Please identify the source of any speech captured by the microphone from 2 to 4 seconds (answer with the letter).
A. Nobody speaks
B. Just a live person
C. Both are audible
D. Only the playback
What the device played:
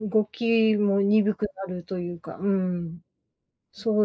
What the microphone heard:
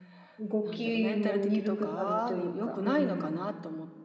C